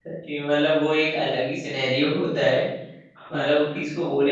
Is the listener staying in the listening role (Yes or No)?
Yes